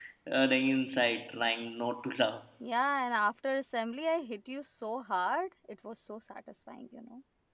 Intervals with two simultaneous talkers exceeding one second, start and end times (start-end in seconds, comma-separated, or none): none